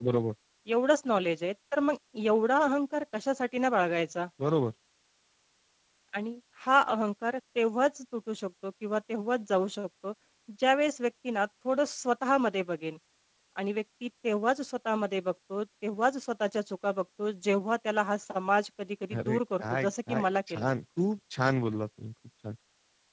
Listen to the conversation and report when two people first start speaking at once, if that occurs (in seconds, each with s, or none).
19.1 s